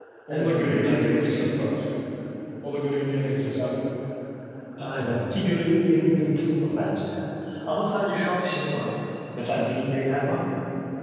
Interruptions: present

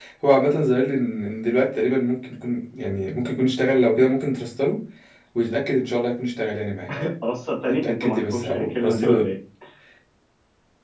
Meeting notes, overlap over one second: present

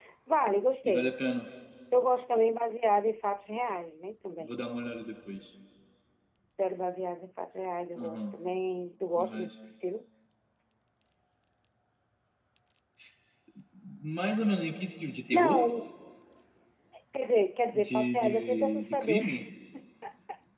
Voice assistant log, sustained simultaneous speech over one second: present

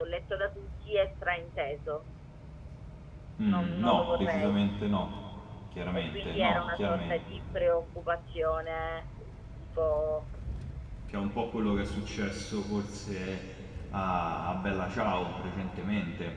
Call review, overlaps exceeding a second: present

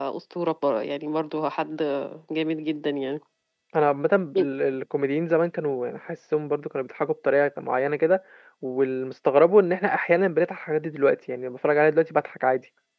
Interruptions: none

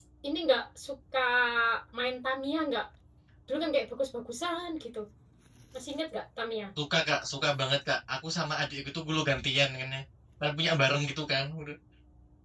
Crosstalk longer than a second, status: none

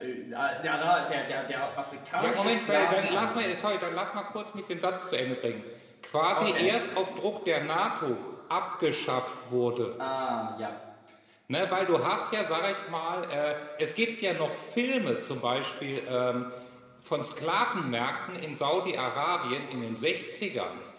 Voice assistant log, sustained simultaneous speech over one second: present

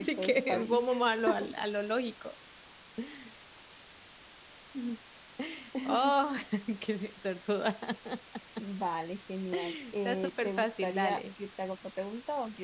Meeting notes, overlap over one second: present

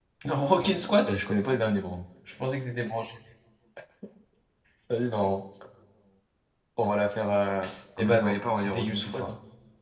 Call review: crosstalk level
present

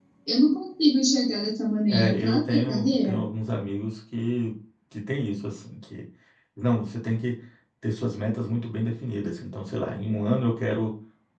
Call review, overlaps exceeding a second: present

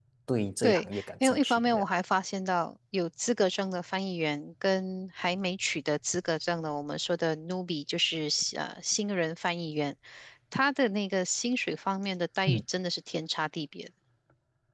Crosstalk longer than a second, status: present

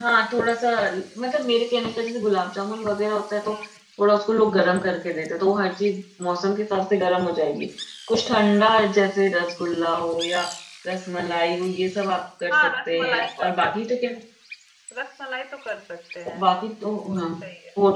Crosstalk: present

